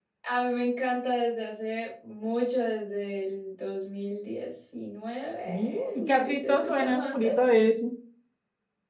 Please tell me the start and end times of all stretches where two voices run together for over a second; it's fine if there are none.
5.5-7.4

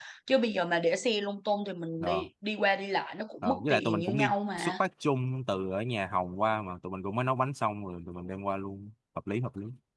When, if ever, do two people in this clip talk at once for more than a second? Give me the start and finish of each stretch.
3.4-4.7

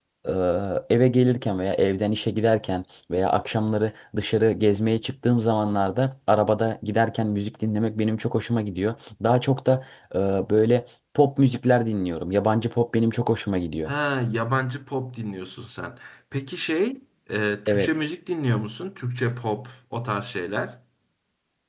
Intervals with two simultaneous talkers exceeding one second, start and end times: none

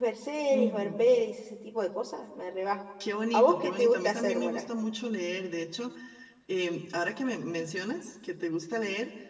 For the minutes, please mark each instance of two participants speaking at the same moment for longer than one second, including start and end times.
3.3-4.6

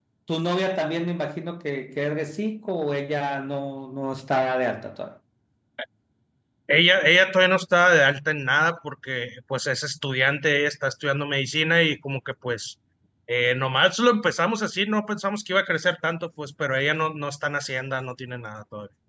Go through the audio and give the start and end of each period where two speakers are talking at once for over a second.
none

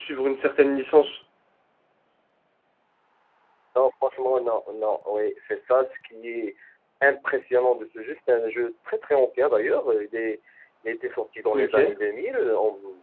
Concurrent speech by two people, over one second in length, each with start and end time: none

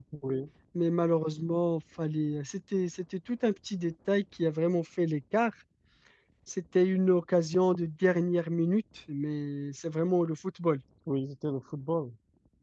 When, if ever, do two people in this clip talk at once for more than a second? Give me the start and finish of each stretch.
none

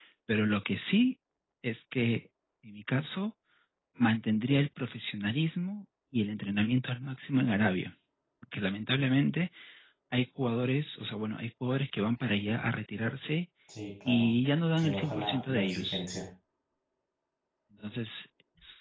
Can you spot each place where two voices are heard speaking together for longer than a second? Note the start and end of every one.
14.8-16.1

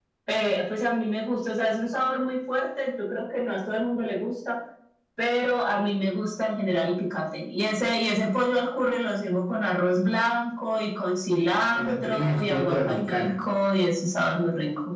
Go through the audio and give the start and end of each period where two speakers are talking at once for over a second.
11.8-13.2

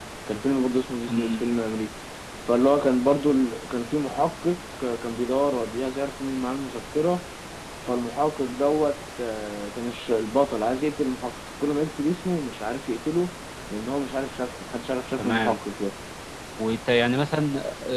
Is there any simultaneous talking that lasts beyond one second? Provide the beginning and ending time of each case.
none

